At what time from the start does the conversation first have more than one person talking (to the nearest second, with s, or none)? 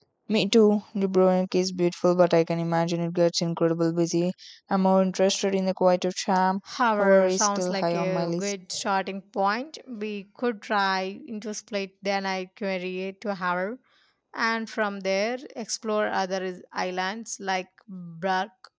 7 s